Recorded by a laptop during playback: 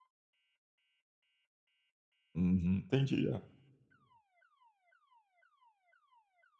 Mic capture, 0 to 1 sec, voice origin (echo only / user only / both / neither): neither